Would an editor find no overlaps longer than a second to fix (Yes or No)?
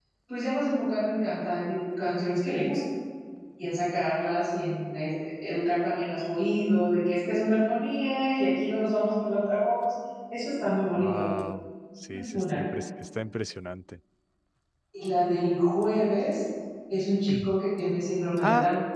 Yes